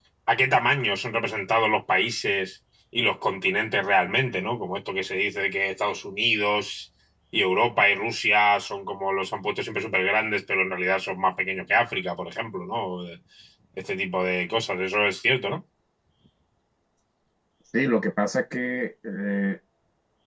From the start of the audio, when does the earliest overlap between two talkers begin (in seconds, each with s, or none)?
none